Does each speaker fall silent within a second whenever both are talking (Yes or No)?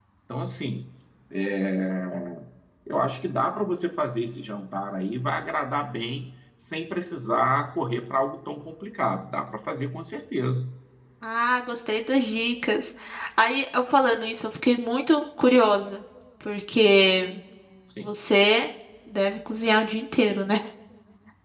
Yes